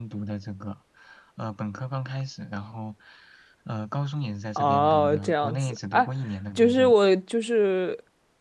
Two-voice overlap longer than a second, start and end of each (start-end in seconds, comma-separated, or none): 4.6-6.0